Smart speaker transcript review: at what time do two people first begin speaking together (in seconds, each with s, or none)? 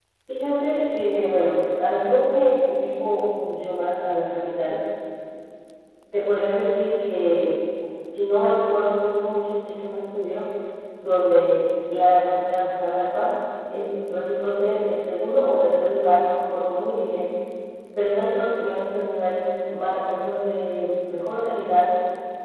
none